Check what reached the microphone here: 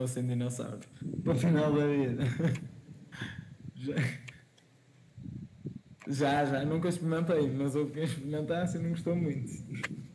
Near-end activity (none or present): none